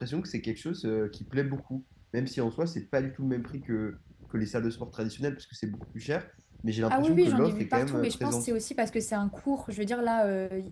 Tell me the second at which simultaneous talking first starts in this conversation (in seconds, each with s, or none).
6.9 s